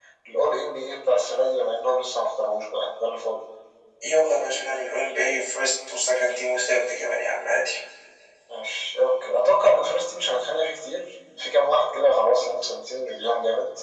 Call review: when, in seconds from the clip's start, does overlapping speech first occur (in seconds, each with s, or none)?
none